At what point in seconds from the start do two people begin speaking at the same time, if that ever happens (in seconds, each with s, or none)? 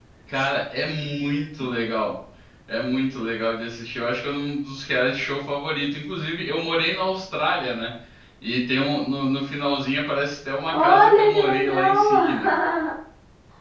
10.7 s